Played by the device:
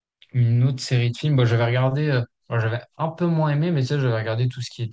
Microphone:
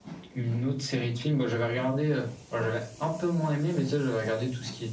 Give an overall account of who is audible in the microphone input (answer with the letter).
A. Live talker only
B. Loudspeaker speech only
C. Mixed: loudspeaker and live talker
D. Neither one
B